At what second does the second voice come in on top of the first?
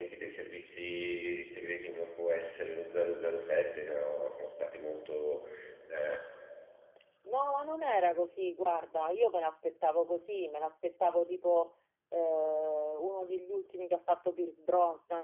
none

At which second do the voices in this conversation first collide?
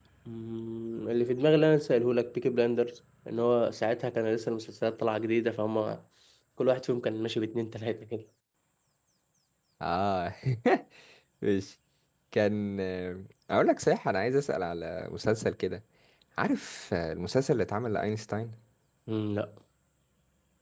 none

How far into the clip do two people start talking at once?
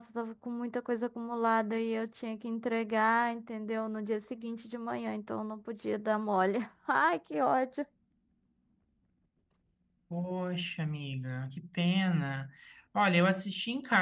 none

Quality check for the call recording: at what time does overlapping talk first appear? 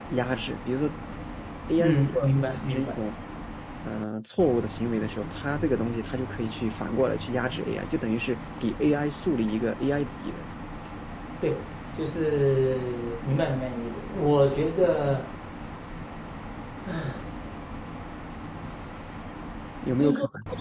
1.8 s

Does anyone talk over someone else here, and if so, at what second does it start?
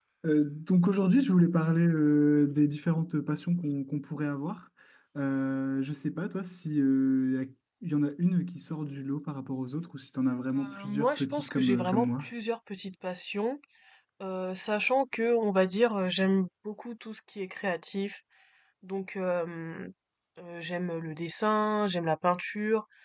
10.6 s

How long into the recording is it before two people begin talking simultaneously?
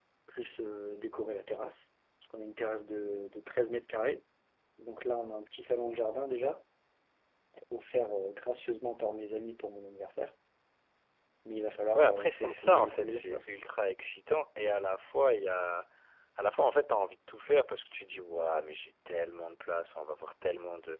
11.9 s

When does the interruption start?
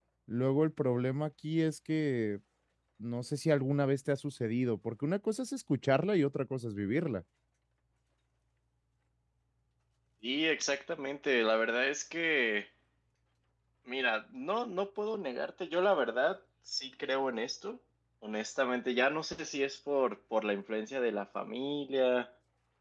none

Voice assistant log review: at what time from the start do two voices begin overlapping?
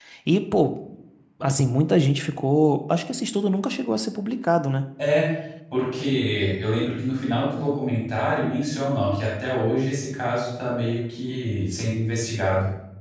none

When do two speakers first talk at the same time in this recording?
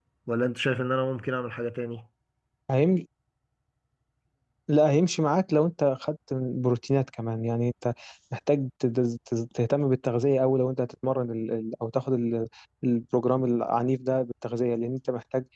none

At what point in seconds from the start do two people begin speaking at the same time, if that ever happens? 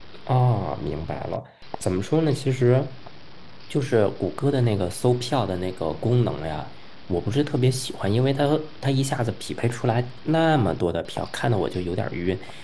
none

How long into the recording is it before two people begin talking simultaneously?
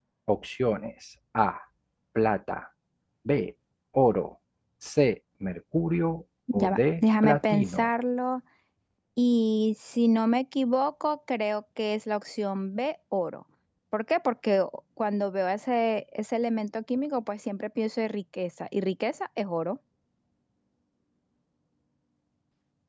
6.5 s

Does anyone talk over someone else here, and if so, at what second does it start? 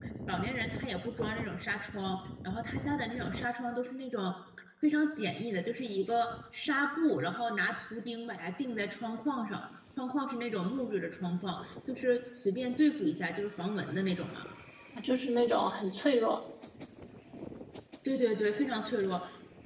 none

